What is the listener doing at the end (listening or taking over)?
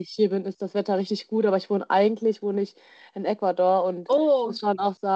listening